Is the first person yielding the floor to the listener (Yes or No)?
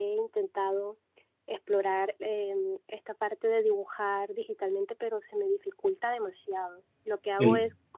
No